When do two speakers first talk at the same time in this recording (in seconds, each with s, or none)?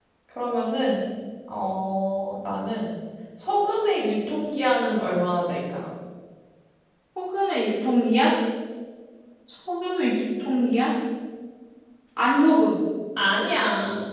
none